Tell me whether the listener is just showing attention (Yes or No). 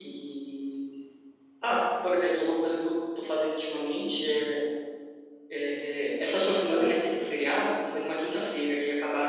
Yes